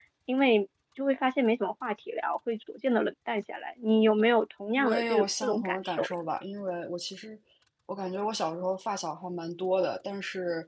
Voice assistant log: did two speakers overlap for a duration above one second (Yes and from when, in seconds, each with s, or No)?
Yes, from 4.8 s